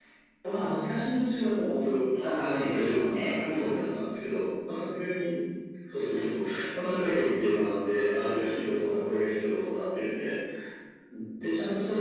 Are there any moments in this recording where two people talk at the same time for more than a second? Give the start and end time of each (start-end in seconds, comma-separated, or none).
2.3-3.8